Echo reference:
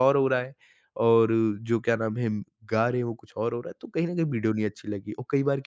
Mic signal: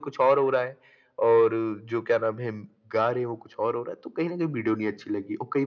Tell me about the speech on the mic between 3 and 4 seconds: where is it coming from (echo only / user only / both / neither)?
echo only